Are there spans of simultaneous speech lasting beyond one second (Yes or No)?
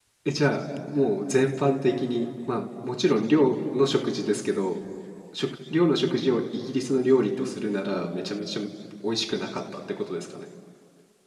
No